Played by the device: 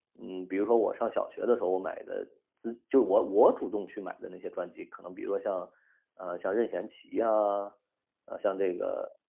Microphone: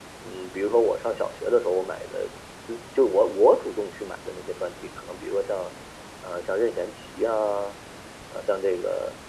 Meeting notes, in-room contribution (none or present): none